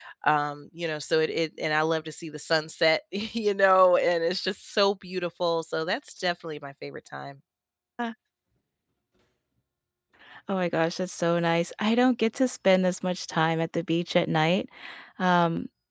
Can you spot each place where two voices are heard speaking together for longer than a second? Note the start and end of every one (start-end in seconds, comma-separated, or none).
none